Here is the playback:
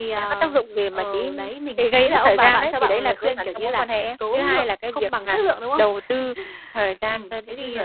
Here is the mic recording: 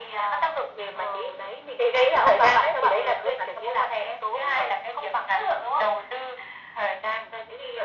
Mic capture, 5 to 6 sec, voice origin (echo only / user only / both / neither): echo only